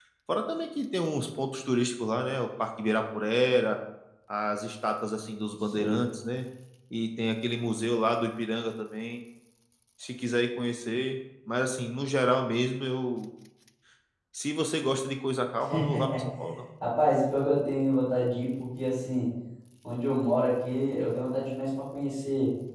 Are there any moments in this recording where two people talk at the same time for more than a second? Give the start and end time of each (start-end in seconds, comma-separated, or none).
none